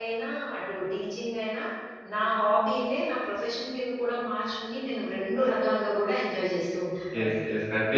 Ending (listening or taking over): taking over